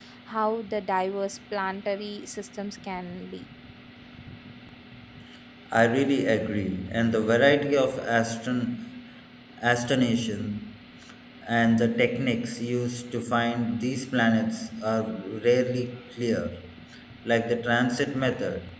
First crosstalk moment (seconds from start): none

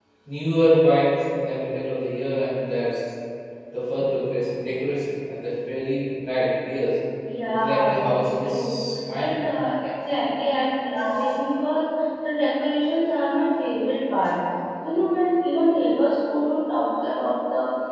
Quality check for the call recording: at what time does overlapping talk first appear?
8 s

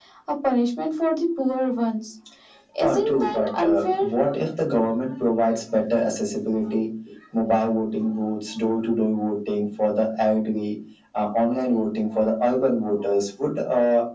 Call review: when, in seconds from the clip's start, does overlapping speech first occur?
3 s

